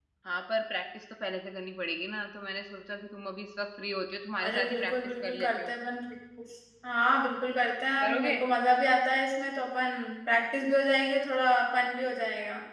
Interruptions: present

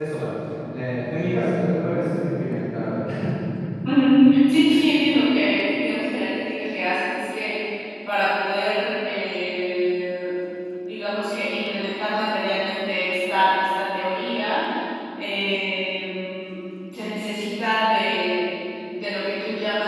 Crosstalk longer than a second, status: none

